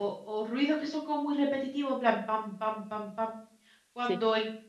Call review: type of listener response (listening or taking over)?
listening